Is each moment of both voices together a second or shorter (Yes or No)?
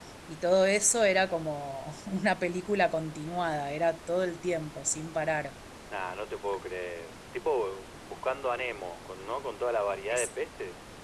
Yes